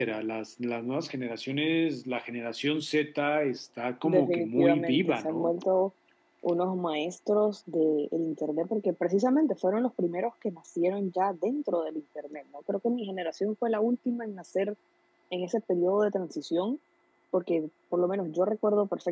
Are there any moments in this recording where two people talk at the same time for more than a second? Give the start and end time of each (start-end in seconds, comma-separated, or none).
4.0-5.6